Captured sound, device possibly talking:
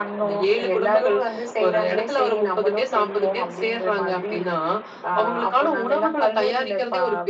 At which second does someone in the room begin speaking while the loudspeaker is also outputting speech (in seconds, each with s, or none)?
none